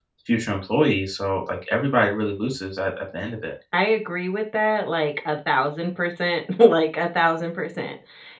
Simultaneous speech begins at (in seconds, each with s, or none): none